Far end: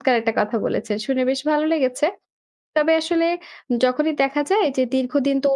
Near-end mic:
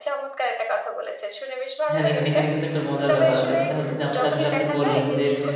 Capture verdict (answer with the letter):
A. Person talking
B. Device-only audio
A